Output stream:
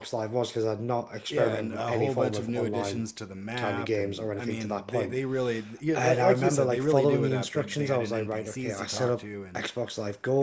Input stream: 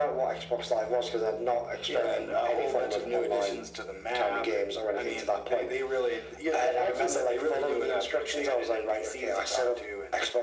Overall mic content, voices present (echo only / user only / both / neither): echo only